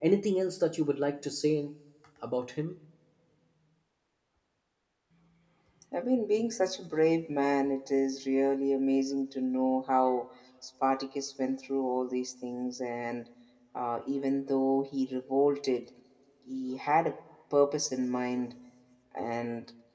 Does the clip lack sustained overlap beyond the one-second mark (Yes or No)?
Yes